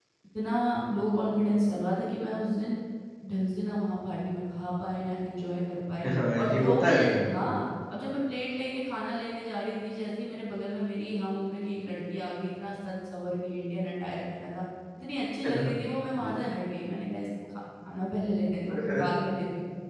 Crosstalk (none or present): present